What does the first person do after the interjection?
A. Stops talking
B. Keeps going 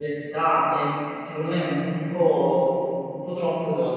A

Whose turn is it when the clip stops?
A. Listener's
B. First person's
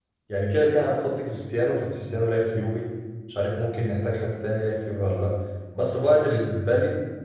B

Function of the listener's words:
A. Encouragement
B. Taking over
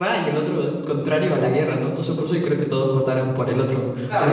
B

